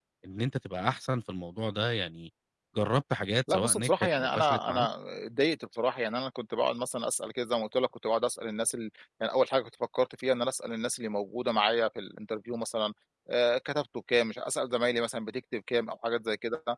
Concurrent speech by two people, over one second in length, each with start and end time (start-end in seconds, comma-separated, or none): 3.5-4.9